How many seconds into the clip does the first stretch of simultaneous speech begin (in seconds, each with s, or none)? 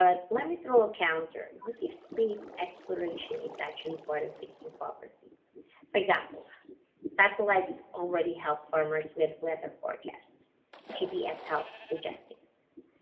none